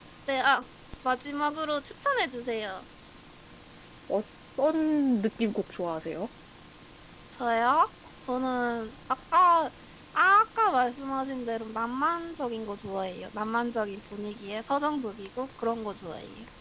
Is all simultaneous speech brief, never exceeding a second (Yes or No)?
Yes